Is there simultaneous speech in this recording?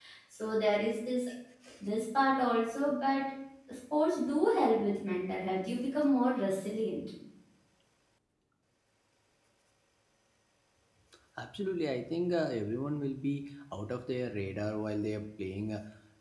No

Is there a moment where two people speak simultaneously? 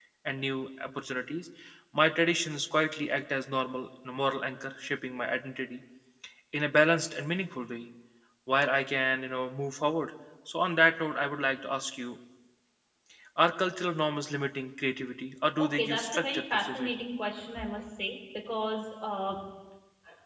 Yes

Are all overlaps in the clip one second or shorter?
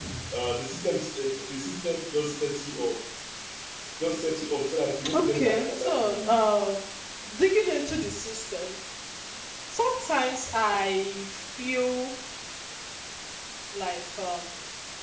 No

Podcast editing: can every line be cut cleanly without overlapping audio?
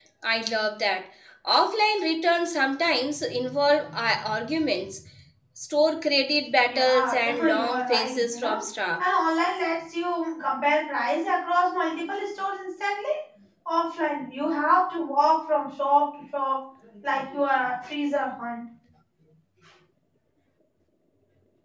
No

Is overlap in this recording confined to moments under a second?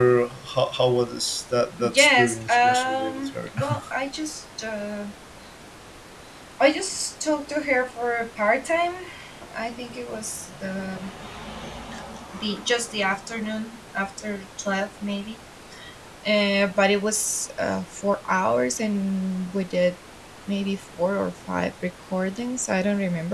No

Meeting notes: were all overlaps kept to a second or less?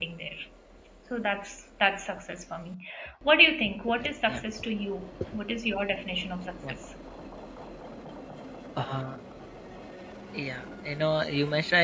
Yes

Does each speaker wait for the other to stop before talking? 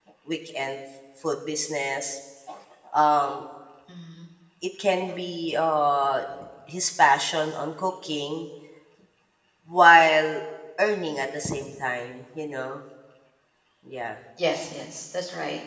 Yes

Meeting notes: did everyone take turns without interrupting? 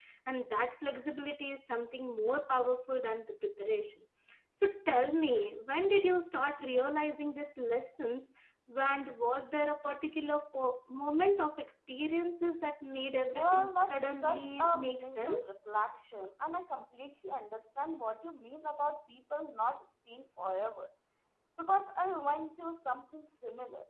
No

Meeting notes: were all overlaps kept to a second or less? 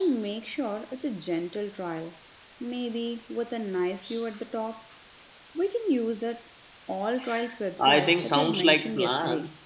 No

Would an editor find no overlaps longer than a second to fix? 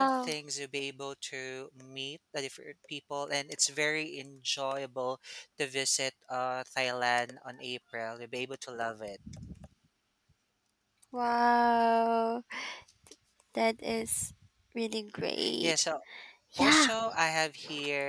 Yes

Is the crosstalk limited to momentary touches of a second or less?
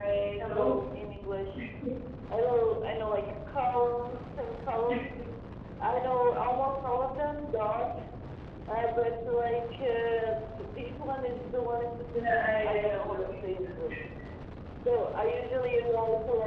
No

